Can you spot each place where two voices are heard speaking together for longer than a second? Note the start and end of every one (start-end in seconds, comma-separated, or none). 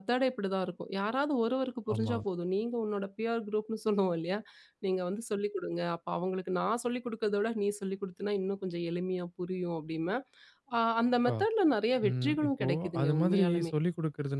12.1-13.7